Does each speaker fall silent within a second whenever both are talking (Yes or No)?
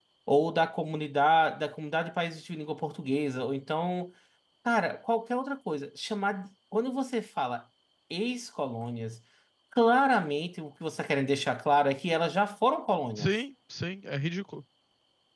Yes